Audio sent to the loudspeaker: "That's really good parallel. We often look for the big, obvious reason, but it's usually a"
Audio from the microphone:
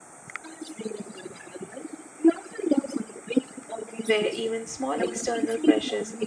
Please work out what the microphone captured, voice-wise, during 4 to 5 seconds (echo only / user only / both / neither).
both